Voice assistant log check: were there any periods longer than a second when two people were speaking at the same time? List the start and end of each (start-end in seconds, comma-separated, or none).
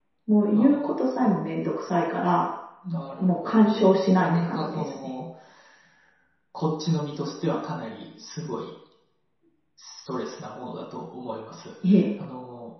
3.2-5.0